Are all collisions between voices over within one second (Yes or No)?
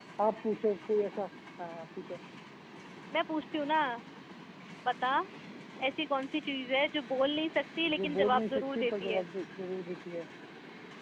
No